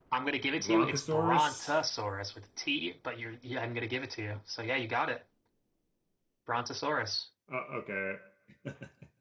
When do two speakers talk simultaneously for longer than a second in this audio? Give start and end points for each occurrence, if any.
0.6-1.8

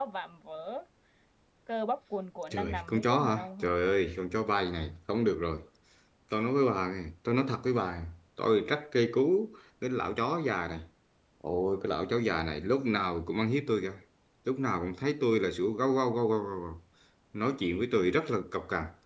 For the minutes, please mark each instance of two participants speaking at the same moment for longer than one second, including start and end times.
2.5-3.7

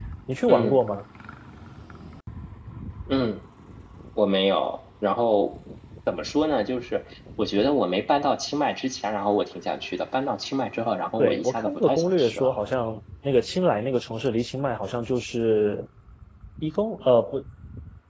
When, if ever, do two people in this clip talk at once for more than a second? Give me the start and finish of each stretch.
11.2-12.5

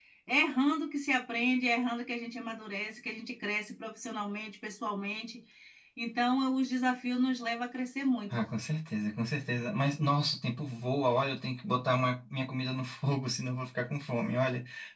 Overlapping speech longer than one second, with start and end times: none

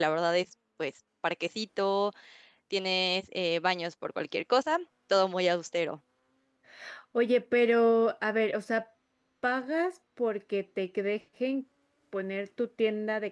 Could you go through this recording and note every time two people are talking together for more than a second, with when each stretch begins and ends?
none

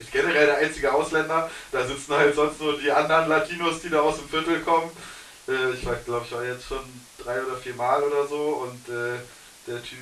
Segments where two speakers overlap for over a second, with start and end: none

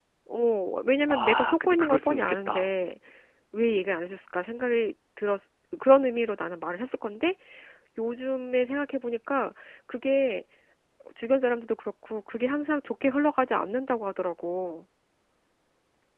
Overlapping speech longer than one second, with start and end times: 1.1-2.7

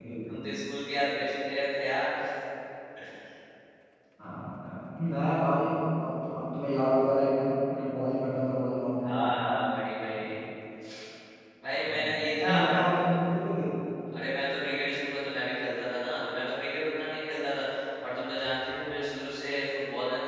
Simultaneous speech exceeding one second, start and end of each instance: 11.8-13.1

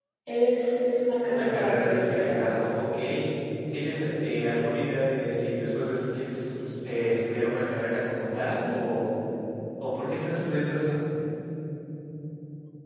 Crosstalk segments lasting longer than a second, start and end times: 1.2-2.5

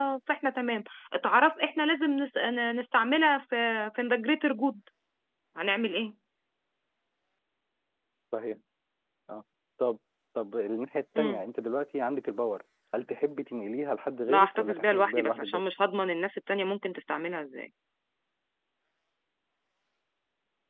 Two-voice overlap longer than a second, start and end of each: 14.3-15.6

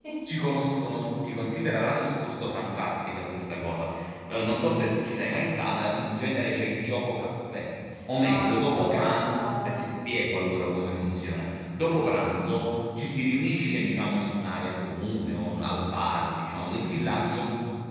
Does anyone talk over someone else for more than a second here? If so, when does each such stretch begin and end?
8.1-9.8

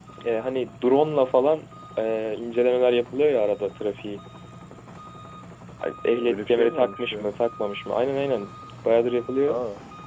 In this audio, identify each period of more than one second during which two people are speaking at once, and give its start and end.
6.0-7.2

